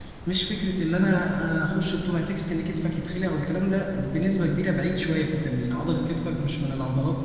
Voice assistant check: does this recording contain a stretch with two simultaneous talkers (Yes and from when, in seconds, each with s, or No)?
No